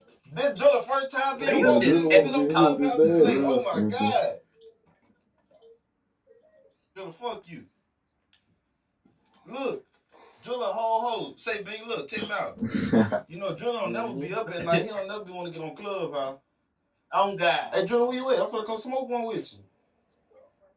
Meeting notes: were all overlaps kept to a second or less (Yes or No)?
No